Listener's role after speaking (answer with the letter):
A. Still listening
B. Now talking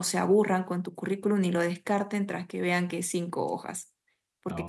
A